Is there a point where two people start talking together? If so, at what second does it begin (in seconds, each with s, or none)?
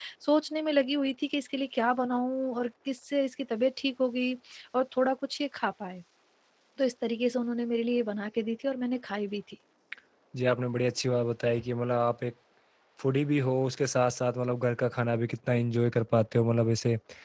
none